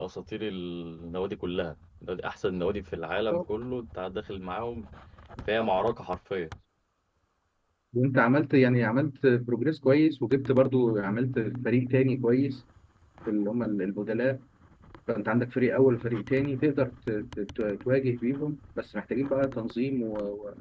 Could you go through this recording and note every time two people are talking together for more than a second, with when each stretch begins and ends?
none

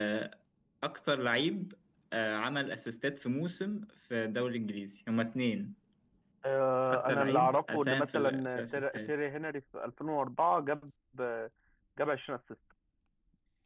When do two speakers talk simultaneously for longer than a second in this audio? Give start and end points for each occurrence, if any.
6.9-9.1

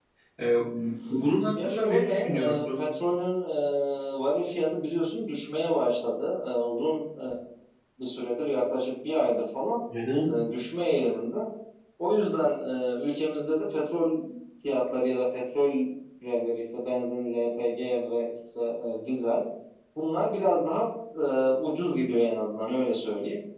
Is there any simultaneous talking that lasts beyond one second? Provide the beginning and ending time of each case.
1.6-2.8

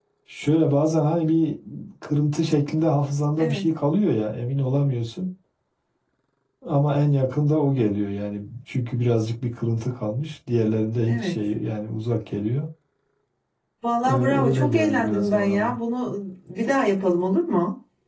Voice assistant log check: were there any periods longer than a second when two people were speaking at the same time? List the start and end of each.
14.1-15.8

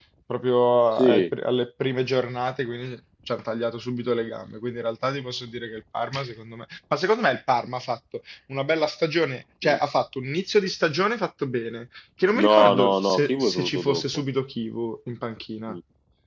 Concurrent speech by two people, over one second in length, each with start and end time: 12.4-14.0

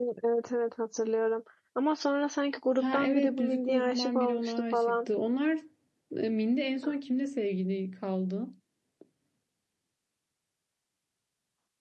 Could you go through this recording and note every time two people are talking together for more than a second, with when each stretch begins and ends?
2.8-5.0

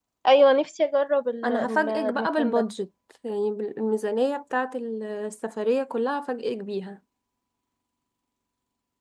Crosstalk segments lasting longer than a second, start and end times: 1.4-2.6

